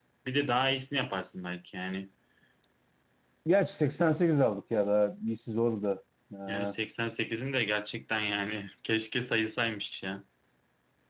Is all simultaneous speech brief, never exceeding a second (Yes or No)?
Yes